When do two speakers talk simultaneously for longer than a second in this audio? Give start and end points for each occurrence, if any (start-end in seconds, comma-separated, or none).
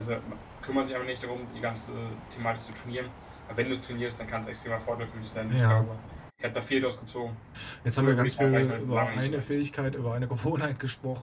7.9-9.5